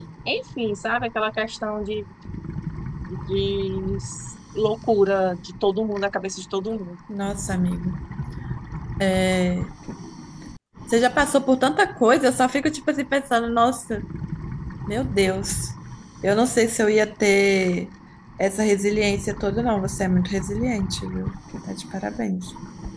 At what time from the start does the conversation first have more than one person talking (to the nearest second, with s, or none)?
none